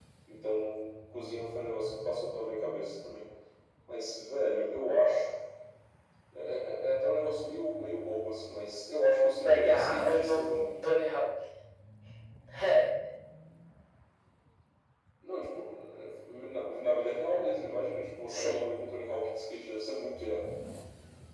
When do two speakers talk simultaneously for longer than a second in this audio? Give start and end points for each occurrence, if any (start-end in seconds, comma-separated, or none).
9.4-10.7